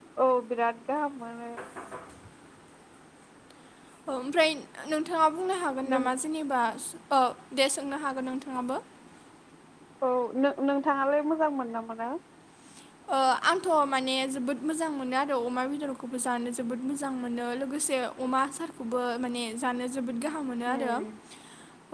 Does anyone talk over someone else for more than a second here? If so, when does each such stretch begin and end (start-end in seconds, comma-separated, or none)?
none